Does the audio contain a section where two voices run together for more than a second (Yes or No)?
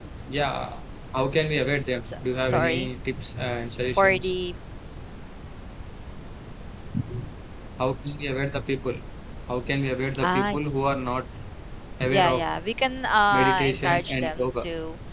Yes